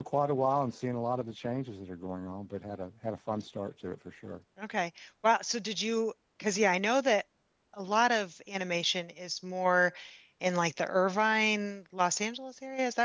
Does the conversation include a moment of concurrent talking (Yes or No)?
No